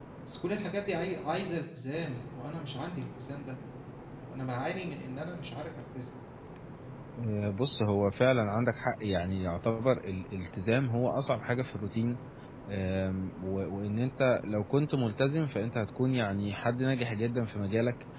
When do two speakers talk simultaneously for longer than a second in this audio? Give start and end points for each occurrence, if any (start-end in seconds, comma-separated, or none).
none